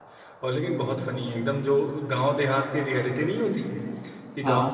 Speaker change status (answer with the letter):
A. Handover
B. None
B